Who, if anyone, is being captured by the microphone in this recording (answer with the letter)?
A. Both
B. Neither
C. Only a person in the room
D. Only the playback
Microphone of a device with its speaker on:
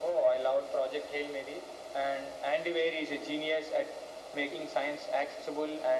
D